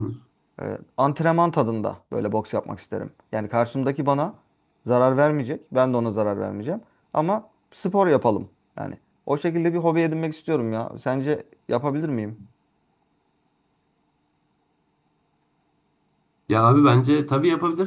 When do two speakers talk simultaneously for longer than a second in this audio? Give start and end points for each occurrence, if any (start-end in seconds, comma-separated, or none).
none